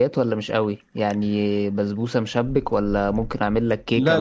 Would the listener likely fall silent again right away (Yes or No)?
No